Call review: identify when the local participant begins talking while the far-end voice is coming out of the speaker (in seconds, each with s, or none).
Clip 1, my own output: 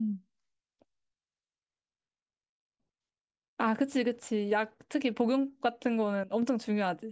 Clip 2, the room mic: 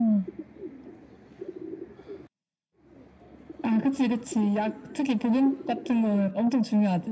none